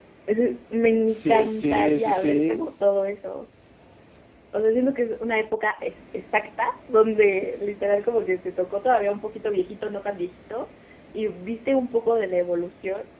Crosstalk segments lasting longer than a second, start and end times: 1.2-2.7

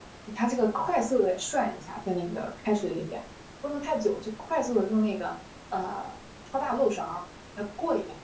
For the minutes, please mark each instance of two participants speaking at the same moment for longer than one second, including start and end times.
none

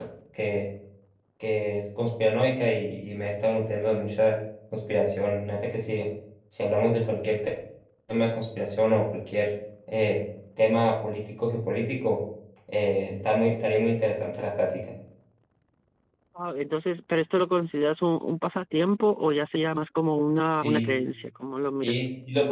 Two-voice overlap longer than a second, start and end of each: none

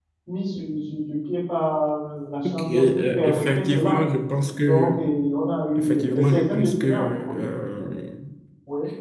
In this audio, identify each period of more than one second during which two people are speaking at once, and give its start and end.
2.5-4.0, 5.8-7.4

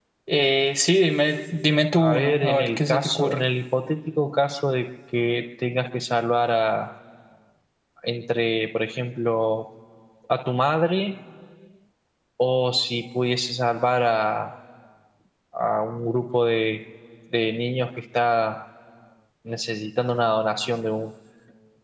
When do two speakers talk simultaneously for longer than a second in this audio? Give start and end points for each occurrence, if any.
2.0-3.4

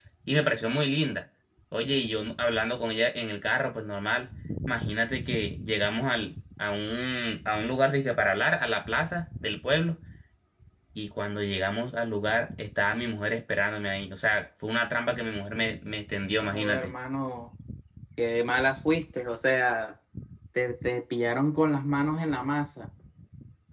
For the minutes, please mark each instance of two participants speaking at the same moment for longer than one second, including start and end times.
none

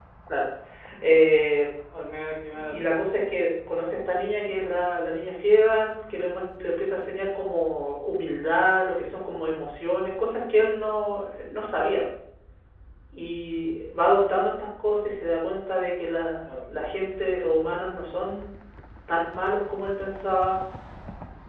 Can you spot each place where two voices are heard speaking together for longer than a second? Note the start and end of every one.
none

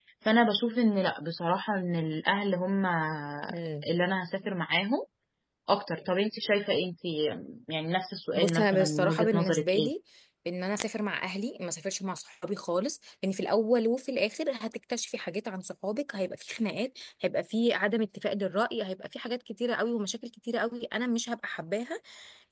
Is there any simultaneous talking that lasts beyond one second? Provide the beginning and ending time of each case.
8.4-9.9

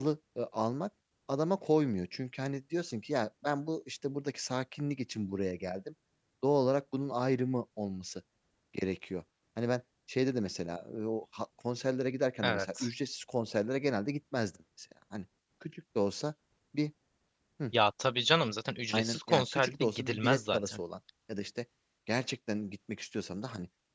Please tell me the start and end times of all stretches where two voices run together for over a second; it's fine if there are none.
18.9-20.8

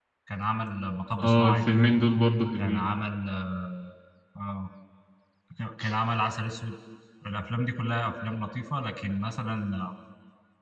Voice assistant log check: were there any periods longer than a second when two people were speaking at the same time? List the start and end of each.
none

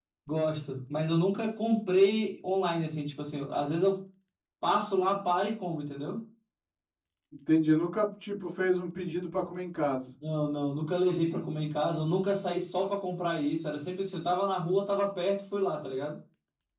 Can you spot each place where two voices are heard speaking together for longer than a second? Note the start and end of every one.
none

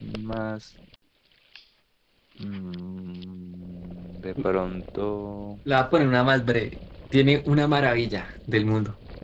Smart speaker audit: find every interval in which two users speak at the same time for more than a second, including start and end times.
none

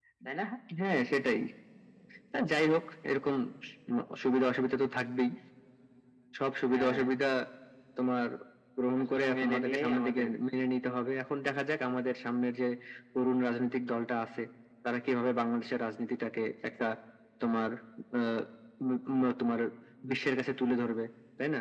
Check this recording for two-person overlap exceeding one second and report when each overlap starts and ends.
9.0-10.3

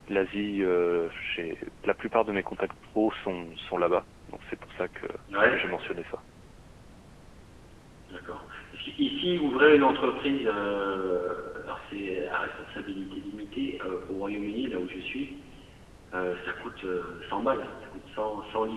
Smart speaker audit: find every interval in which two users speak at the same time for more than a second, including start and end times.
none

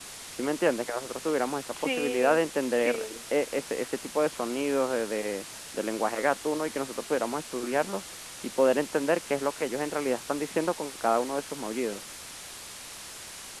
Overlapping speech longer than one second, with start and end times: 1.8-3.0

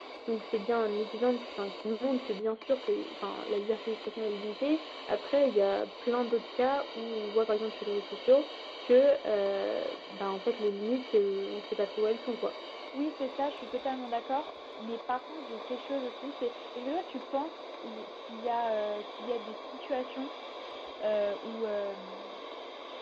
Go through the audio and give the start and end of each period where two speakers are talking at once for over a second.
none

